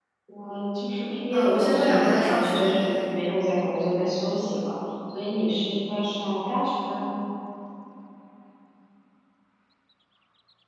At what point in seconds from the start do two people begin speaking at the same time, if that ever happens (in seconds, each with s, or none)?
1.3 s